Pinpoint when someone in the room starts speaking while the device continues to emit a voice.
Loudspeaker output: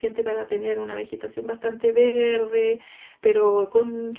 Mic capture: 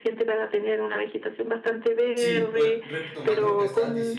2.1 s

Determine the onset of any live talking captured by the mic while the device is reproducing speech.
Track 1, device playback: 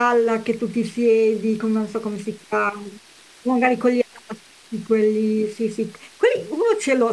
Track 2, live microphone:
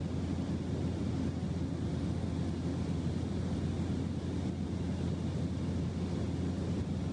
none

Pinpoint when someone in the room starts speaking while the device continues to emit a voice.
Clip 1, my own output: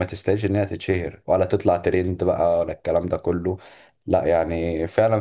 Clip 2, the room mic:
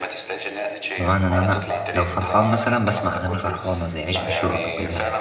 1.0 s

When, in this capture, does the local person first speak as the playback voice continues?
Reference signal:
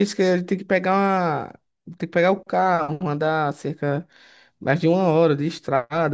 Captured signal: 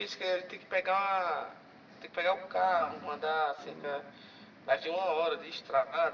none

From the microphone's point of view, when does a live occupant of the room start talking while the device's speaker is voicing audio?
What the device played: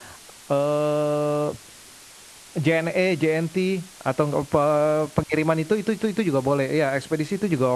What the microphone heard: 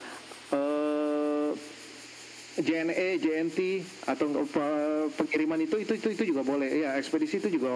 none

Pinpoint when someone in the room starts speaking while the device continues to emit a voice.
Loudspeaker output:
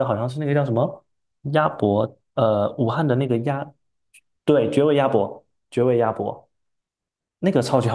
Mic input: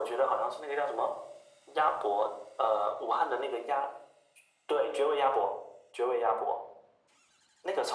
none

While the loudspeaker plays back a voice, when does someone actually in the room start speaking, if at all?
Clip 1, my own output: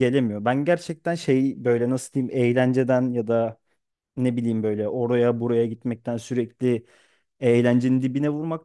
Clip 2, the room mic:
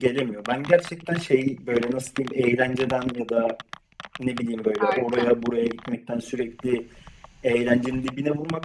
4.8 s

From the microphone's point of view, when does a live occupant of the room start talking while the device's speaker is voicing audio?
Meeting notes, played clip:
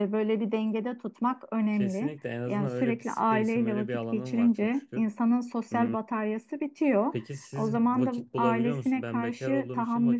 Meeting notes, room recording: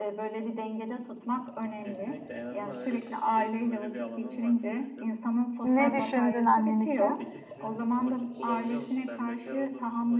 5.6 s

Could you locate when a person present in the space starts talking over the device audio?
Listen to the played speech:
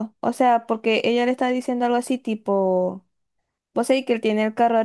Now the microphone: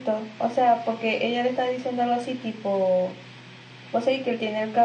none

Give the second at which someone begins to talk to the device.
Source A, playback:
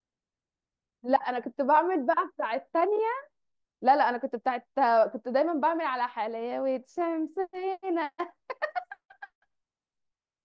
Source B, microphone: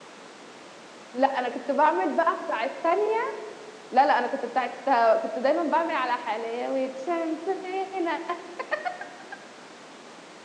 none

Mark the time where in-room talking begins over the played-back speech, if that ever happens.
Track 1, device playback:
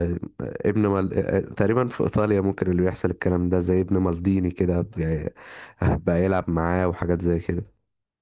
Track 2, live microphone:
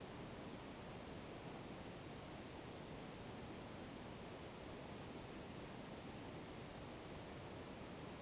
none

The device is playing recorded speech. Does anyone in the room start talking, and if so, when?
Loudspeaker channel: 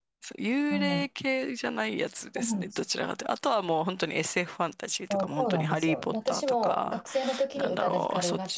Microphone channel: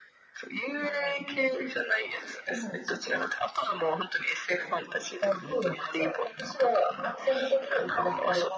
none

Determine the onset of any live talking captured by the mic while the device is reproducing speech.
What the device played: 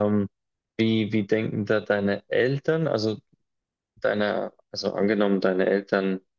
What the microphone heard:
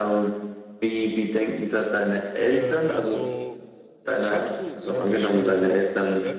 2.4 s

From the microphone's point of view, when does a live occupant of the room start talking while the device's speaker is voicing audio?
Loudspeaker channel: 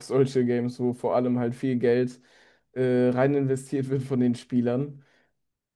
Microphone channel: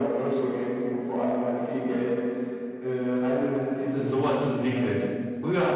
3.9 s

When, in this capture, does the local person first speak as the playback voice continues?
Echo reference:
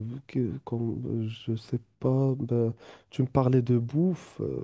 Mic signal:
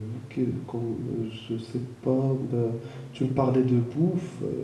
none

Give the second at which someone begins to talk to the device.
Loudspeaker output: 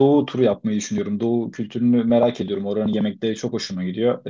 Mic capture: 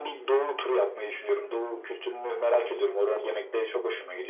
none

